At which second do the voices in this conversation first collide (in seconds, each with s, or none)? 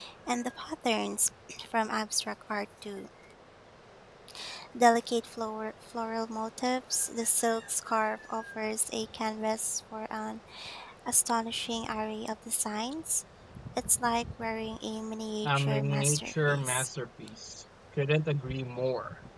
15.4 s